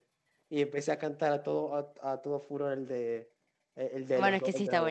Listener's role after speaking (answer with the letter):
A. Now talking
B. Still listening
A